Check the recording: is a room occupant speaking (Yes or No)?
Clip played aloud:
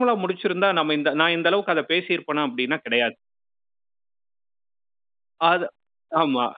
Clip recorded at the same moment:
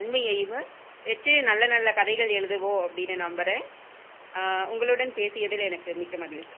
Yes